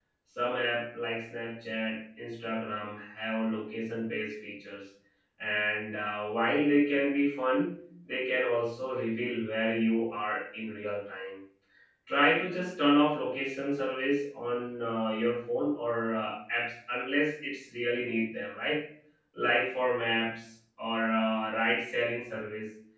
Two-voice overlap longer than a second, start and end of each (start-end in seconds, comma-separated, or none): none